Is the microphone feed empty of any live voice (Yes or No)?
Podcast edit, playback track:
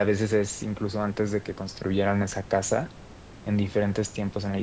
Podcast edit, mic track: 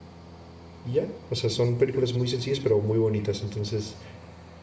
No